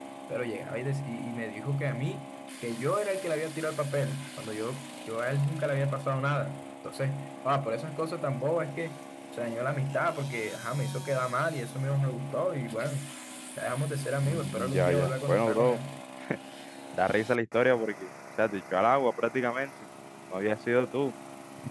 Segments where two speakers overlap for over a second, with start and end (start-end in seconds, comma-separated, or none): 14.2-15.8